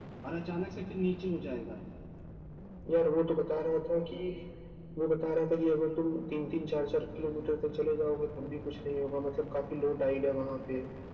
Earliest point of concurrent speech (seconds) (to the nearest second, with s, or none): none